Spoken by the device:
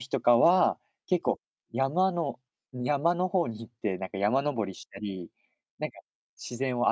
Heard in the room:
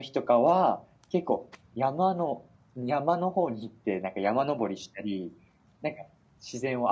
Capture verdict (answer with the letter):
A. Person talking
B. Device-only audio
B